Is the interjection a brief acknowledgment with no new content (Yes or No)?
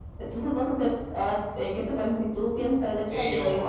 No